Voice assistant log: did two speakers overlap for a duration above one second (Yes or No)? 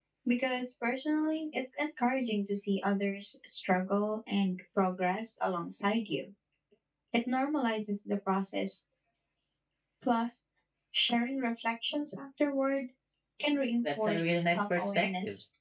Yes